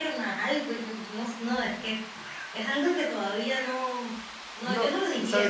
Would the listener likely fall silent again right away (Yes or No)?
No